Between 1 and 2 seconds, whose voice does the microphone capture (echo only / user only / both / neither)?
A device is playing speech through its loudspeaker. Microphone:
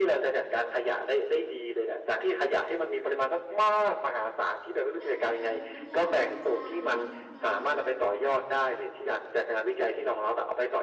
echo only